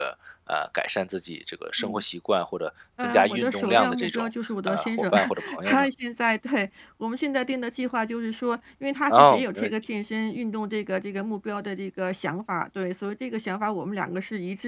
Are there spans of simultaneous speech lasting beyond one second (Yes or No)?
Yes